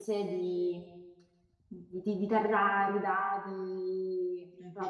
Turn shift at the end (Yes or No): No